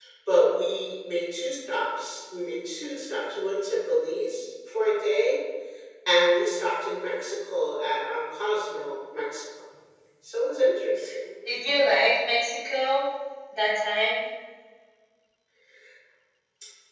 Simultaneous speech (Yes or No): No